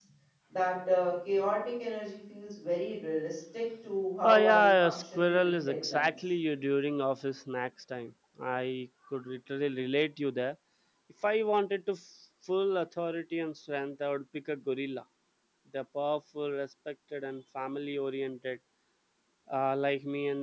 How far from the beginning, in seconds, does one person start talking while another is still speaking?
4.2 s

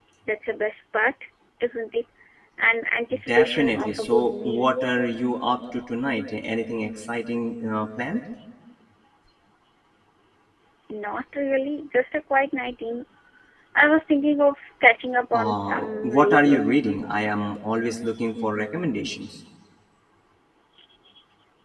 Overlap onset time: 3.3 s

